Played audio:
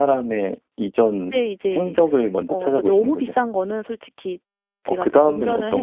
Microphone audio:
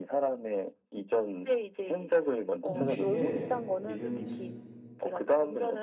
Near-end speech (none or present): present